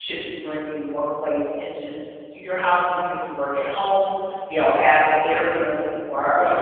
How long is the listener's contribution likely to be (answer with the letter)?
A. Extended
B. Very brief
A